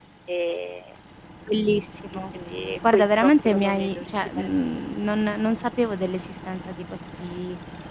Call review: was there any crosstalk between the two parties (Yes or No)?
Yes